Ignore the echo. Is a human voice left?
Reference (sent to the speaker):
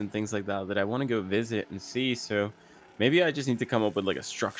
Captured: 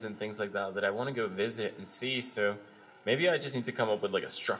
No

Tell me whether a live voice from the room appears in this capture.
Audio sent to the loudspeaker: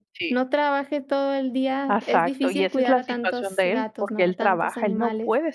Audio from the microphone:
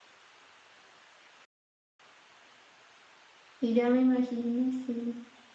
Yes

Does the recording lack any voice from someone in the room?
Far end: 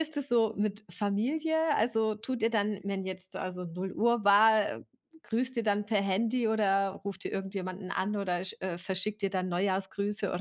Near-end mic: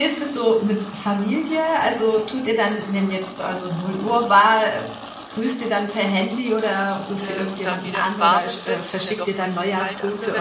No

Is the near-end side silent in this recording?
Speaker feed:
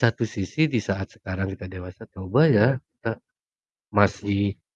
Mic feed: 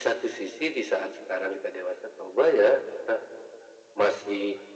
Yes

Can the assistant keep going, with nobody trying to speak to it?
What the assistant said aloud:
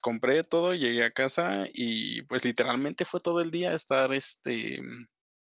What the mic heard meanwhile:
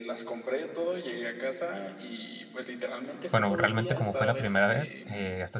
No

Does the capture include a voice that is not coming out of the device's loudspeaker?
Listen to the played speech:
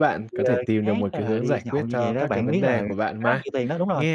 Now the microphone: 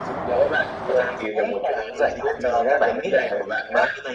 No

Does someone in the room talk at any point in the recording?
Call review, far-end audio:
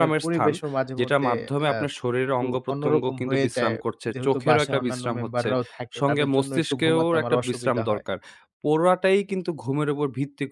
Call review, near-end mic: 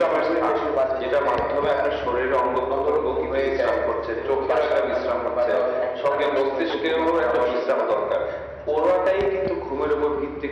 No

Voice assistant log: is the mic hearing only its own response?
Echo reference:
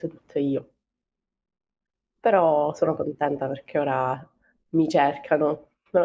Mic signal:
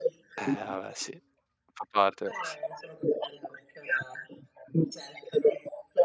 No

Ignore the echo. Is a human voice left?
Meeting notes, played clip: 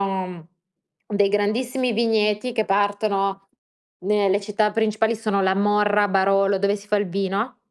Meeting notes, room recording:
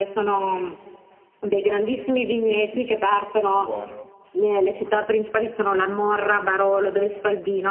Yes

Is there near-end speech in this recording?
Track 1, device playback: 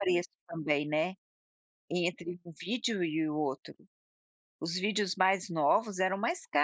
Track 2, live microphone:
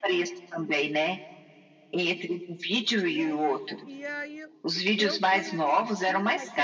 Yes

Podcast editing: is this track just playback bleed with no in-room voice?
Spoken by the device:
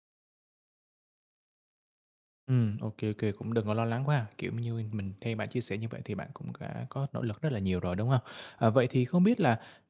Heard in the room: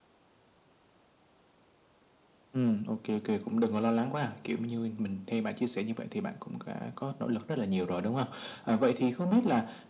Yes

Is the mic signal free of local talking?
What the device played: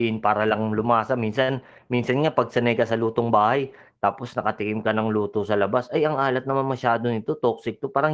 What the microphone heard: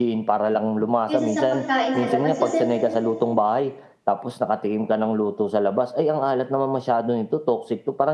No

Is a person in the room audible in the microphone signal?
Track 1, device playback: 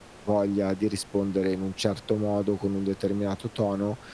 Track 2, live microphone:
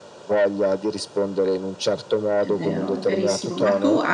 Yes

